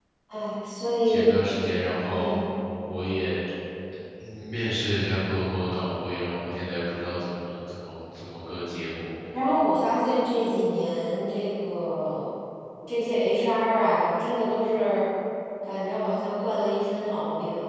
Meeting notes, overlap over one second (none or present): none